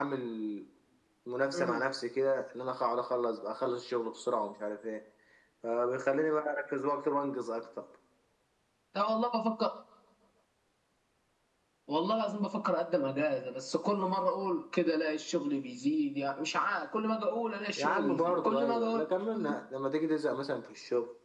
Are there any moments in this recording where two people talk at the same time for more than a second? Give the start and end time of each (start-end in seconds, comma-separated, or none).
17.8-19.0